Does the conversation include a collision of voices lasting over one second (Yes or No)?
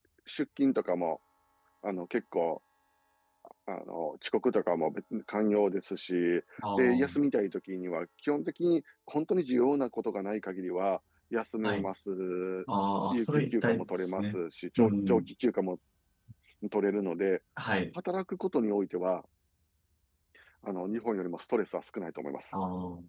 Yes